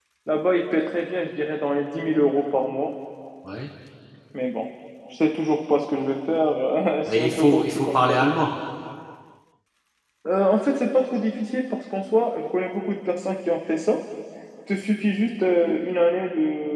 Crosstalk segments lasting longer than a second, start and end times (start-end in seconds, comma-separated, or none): 7.1-8.3